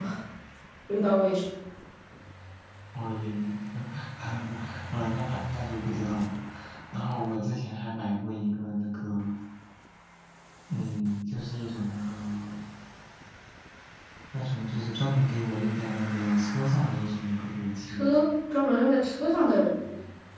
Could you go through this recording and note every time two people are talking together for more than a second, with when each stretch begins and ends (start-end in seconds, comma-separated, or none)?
none